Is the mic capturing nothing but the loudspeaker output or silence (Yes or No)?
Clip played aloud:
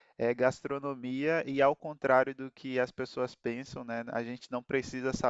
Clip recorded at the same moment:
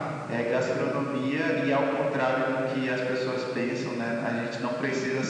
Yes